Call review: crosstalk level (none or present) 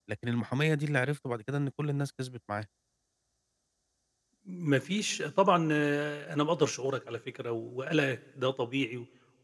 none